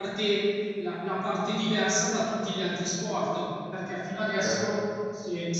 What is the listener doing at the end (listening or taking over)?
listening